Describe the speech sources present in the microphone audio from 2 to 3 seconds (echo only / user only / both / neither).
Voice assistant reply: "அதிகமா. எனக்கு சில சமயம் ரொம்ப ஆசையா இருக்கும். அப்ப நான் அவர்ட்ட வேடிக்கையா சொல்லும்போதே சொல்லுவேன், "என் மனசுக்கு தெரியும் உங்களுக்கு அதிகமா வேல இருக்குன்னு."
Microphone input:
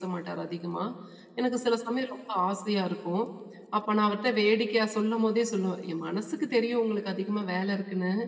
echo only